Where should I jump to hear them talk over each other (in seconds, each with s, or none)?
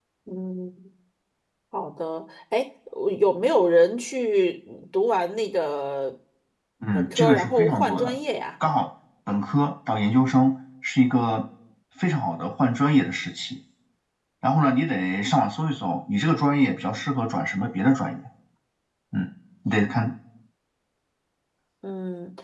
6.9 s